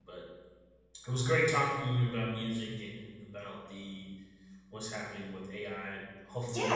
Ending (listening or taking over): taking over